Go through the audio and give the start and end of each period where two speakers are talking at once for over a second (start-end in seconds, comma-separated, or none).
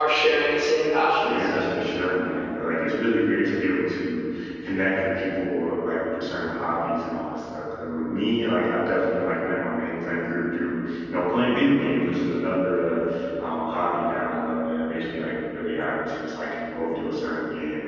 none